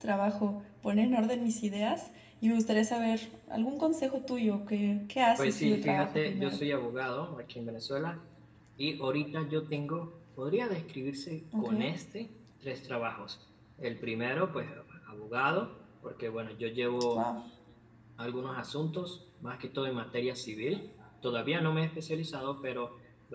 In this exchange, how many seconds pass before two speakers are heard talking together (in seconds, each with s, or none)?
5.4 s